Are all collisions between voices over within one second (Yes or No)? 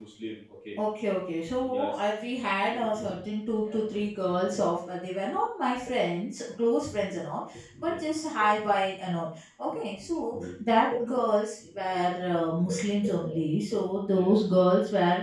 Yes